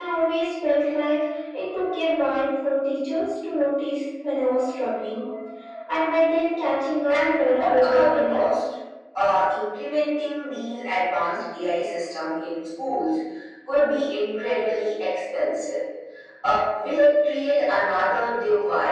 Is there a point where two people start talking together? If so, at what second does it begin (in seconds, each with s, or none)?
7.1 s